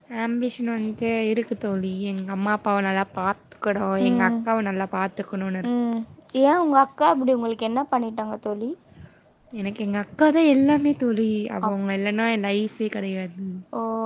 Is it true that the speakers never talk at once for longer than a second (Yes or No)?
Yes